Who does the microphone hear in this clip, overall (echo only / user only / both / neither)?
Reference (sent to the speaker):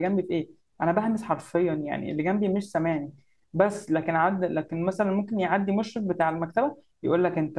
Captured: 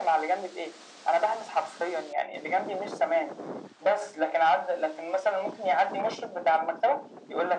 echo only